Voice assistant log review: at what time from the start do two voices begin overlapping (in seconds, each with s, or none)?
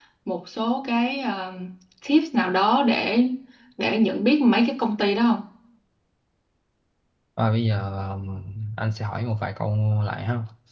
none